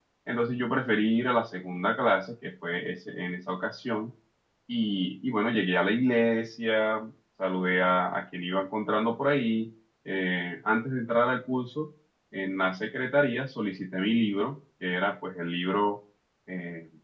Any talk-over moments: No

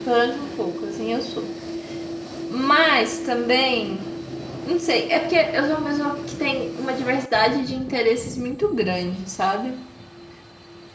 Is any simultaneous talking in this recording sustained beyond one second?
No

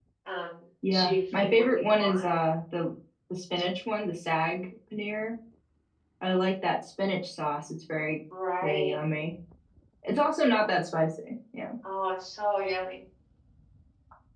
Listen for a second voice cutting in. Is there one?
Yes, from 0.9 s

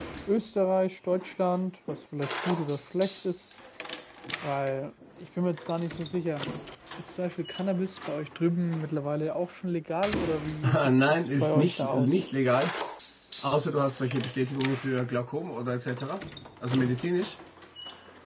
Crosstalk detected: Yes, from 10.6 s

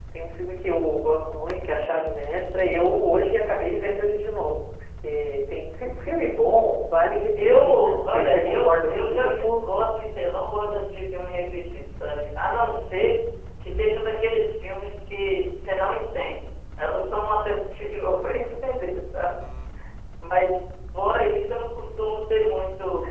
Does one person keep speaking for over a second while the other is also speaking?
Yes, from 7.4 s

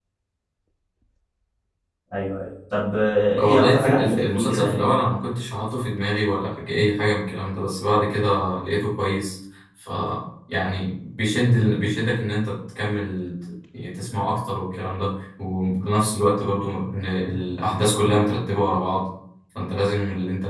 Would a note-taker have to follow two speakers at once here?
Yes, from 3.4 s

